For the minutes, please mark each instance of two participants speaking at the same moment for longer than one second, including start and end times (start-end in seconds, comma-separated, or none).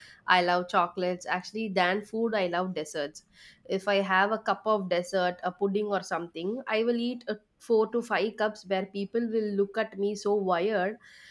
none